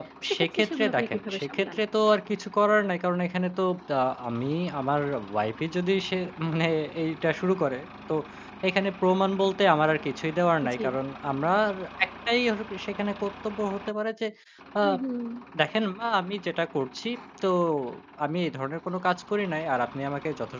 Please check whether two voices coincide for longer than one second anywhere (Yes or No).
Yes